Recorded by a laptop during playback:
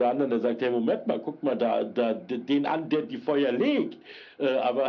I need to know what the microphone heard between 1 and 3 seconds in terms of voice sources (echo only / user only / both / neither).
echo only